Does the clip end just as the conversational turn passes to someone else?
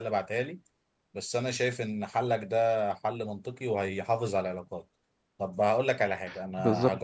No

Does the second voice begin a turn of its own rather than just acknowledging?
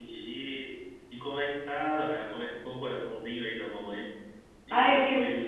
Yes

